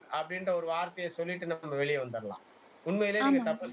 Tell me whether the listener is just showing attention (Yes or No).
Yes